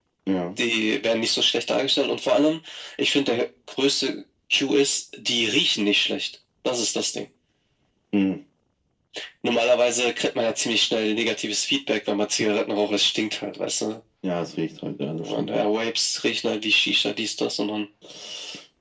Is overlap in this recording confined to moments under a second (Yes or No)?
Yes